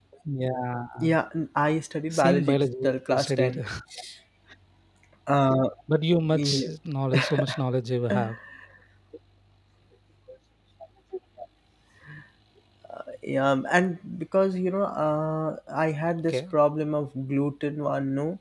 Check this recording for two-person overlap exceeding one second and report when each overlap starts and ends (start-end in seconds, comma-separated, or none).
2.1-3.5